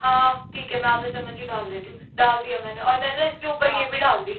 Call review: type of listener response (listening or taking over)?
listening